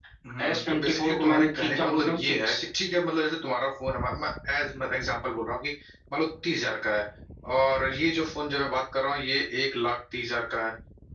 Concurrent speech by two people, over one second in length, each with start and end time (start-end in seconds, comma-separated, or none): 0.5-2.6